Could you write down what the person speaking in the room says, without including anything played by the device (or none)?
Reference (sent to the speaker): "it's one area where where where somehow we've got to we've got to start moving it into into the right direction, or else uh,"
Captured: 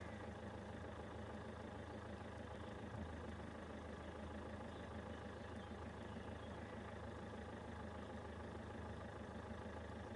none